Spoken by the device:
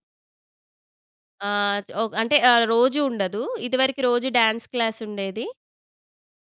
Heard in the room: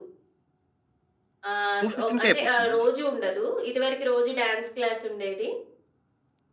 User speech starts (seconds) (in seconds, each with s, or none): 1.8 s